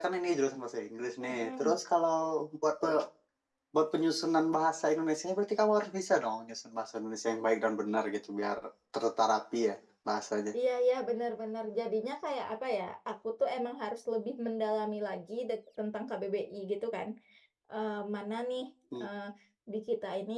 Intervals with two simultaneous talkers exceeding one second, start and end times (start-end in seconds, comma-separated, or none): none